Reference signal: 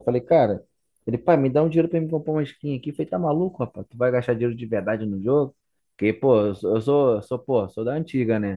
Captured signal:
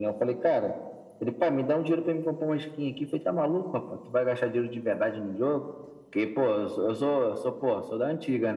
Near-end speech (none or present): none